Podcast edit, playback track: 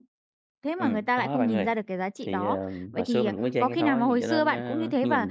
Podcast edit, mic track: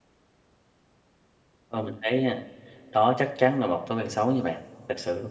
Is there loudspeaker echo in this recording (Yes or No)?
No